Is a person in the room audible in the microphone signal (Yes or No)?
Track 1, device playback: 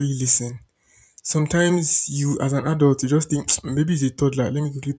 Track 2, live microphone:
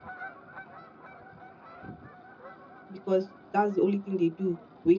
Yes